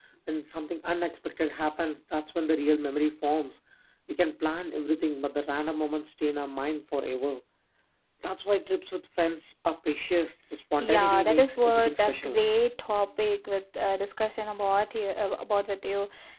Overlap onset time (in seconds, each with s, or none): 10.8 s